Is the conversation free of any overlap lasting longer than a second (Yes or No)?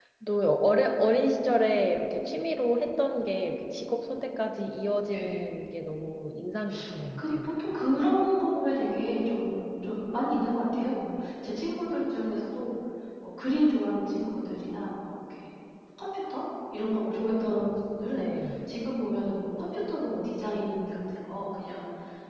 Yes